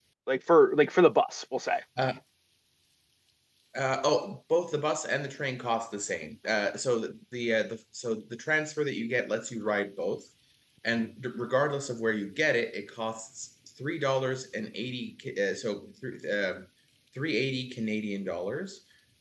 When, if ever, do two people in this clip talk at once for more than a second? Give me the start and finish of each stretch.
none

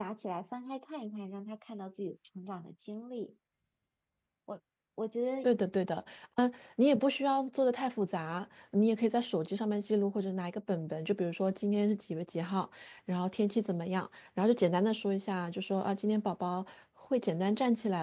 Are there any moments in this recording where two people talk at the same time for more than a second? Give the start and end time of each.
none

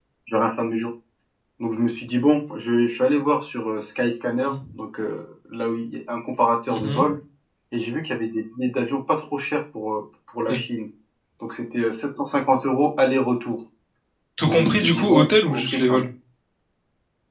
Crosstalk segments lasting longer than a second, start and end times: 14.4-16.0

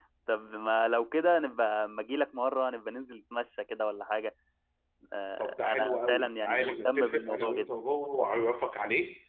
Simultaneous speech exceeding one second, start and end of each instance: 5.4-7.7

